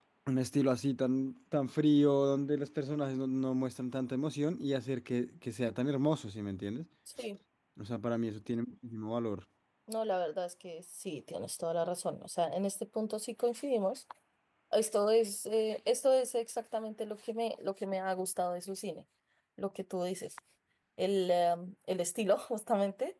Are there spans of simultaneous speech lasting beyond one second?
No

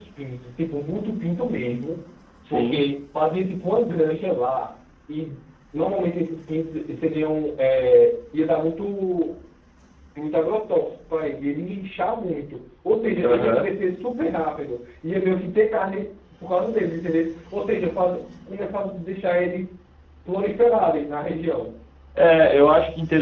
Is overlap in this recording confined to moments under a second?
Yes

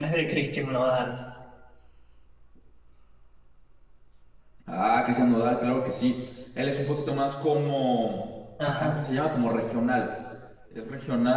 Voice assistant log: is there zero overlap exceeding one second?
Yes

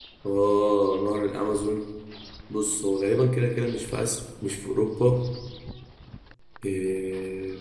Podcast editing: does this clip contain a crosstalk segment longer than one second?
No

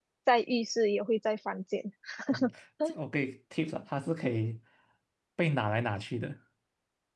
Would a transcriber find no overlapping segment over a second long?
Yes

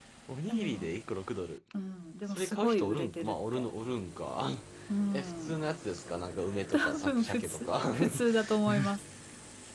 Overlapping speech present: Yes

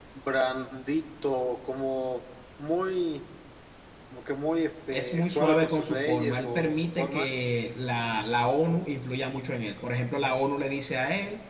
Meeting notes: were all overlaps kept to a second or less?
No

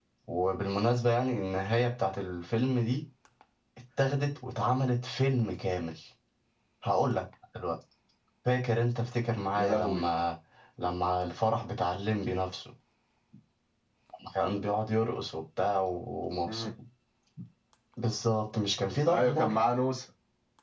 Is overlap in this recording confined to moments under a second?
Yes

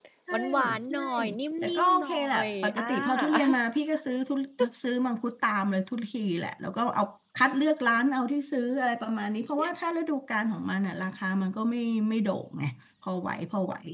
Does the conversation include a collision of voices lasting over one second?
Yes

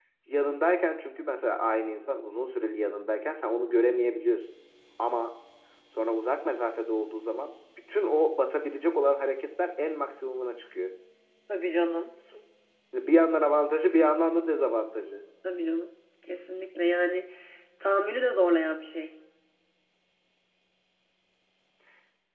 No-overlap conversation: Yes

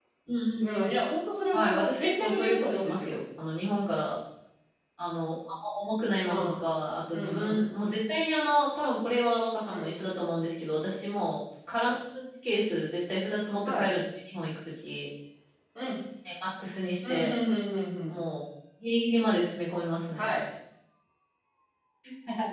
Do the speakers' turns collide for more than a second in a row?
Yes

